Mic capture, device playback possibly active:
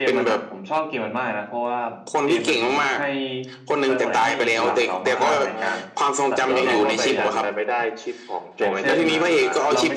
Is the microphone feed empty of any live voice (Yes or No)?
No